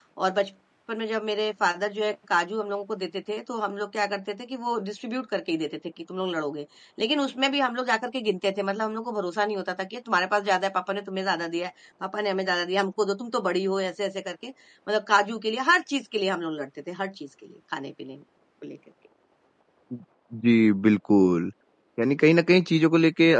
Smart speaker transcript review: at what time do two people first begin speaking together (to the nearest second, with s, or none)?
none